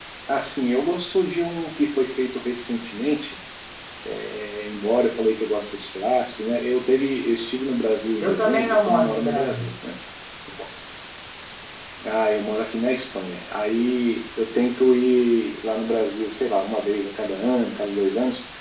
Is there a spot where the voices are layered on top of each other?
Yes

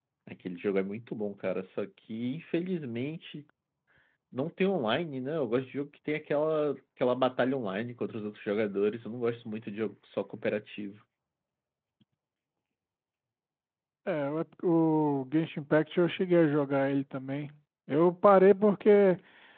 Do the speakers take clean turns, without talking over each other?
Yes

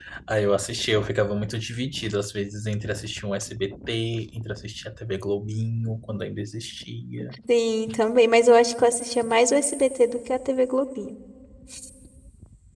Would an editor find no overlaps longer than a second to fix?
Yes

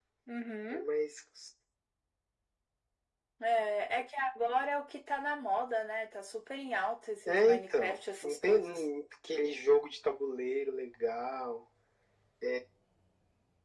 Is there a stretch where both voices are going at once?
Yes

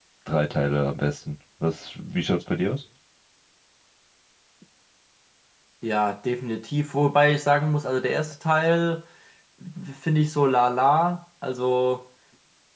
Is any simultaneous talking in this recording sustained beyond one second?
No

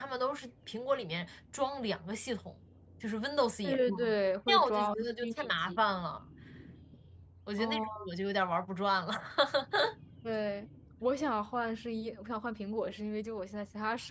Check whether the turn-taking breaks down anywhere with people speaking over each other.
Yes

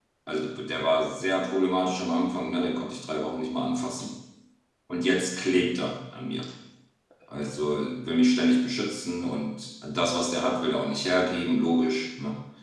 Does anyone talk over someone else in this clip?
No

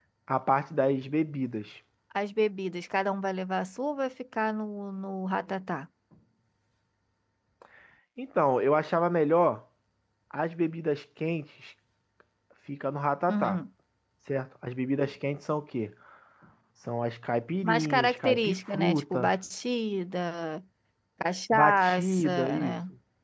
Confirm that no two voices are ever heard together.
No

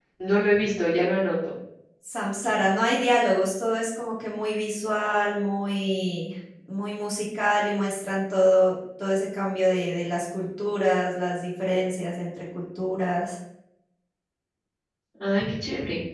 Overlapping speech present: No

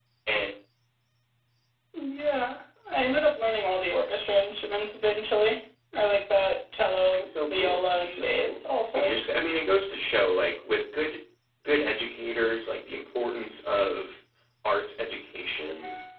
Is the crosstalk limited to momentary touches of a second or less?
No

